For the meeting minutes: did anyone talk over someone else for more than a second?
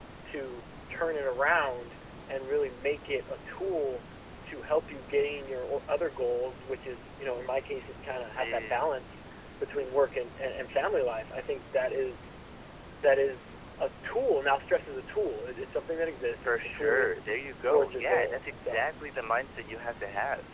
Yes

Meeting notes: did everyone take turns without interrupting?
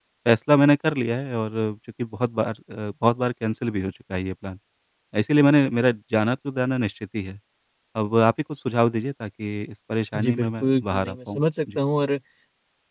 No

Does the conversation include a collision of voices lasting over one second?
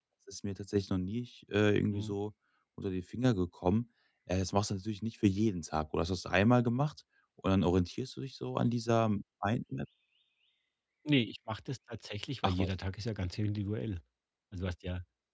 No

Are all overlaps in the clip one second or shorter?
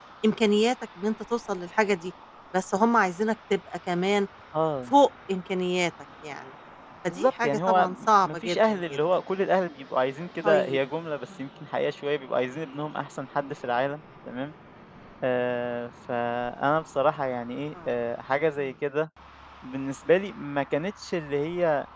No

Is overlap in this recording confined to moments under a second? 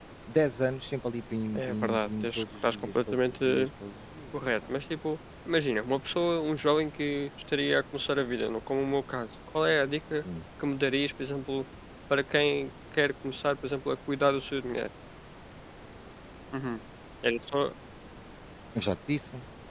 No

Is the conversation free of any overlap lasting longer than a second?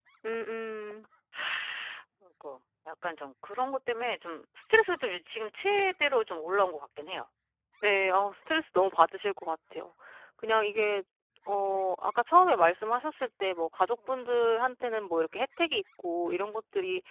Yes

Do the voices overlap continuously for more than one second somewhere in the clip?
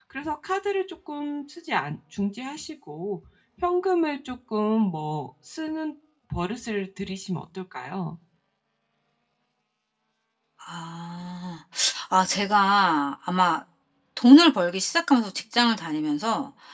No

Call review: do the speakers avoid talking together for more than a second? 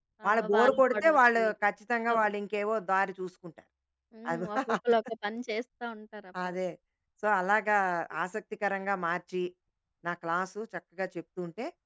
No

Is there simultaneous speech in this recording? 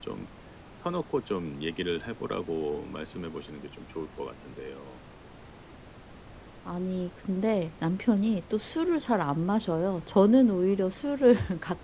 No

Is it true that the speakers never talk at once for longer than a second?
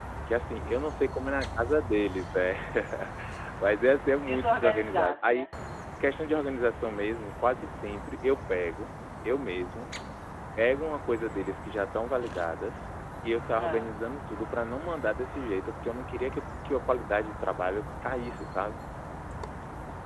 No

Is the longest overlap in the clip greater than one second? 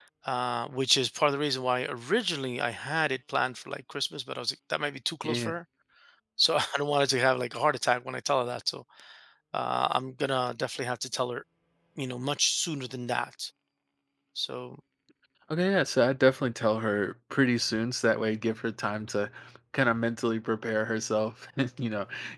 No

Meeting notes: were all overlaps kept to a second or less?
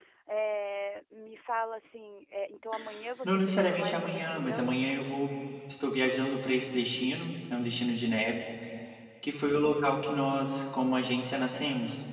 No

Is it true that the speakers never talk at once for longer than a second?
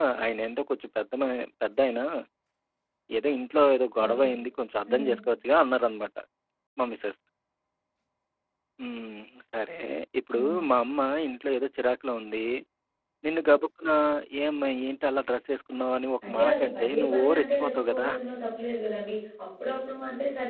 No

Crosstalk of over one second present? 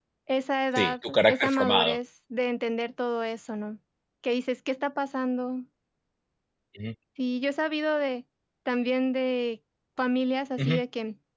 Yes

